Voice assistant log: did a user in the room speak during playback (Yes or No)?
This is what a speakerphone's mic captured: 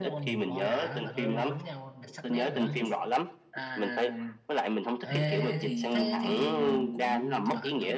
Yes